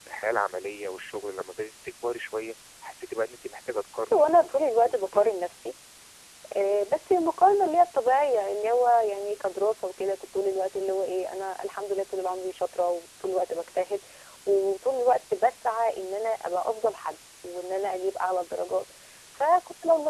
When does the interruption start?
4 s

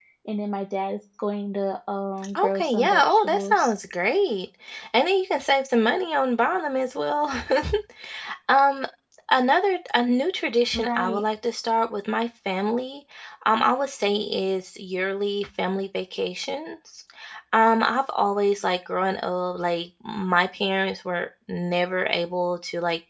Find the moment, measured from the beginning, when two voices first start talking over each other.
2 s

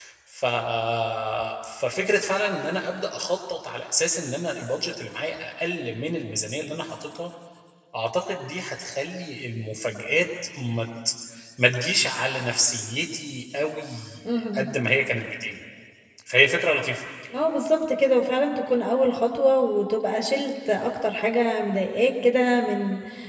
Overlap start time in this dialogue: none

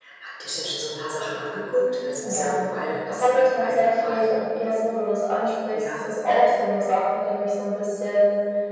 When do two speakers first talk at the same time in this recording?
2 s

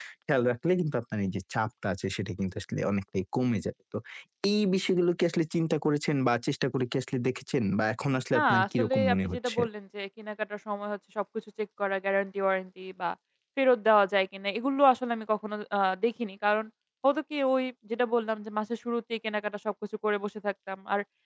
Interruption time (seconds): 8 s

